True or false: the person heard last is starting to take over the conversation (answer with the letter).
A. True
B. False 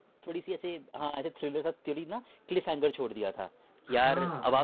B